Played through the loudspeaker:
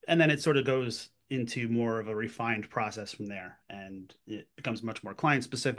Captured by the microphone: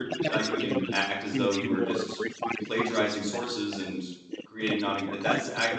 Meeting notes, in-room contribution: present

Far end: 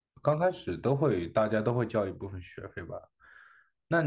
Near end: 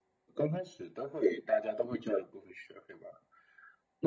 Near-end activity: none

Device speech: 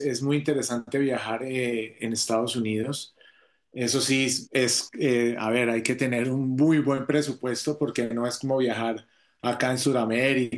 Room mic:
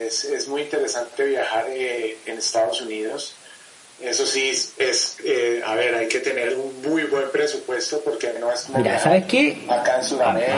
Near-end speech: present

